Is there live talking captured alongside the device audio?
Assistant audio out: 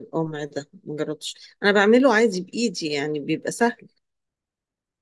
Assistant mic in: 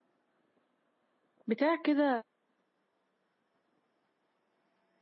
Yes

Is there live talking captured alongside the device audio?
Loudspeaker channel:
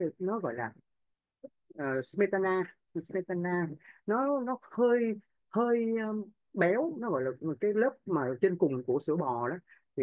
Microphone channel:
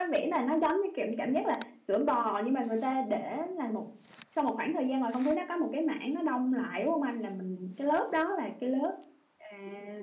Yes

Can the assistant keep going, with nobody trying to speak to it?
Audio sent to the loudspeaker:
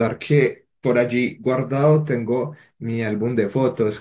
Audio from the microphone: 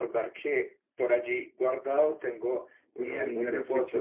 No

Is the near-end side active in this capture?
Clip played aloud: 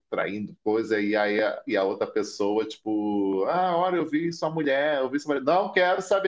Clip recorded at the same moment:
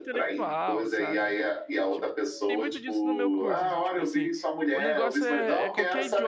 Yes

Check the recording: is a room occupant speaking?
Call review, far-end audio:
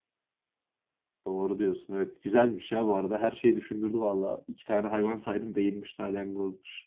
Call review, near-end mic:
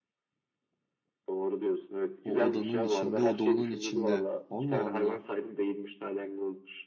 Yes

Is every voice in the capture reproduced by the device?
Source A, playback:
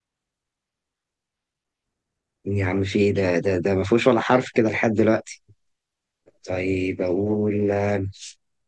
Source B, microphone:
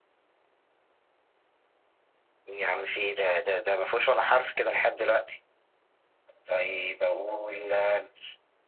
Yes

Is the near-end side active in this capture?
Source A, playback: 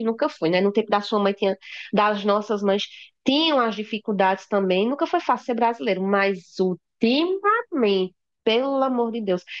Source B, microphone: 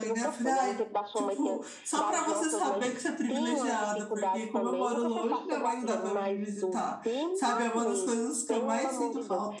Yes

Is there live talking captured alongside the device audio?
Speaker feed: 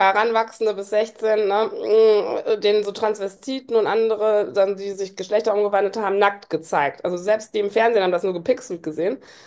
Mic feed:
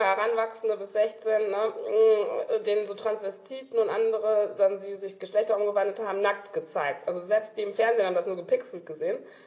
No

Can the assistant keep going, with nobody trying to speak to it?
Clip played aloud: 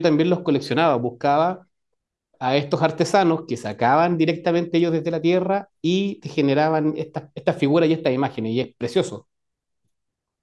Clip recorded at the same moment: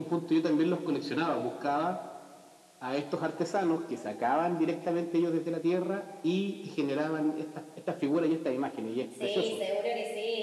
No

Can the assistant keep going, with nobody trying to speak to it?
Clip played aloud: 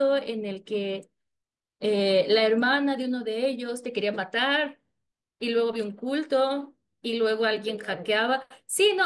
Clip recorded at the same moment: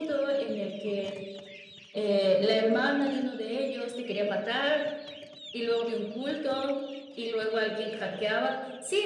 Yes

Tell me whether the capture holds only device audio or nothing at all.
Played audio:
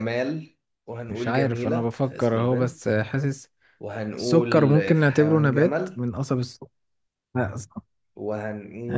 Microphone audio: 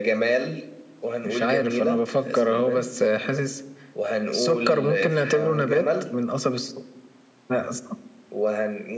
Yes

